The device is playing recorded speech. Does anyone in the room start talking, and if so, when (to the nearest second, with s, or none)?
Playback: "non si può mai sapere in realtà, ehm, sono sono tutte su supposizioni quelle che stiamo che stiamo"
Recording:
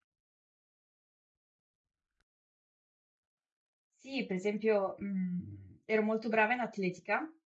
4 s